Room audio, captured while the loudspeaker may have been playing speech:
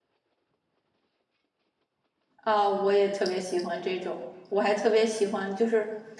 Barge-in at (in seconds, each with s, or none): 2.4 s